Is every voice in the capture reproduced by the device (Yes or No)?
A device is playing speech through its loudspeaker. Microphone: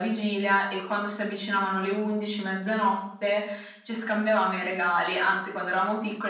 Yes